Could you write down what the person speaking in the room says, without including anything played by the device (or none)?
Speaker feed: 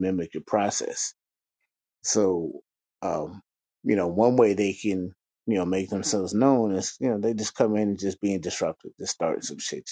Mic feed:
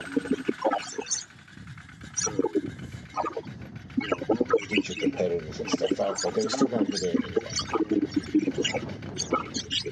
keeps your competitors and stuff out, but they're still gonna get in anyway,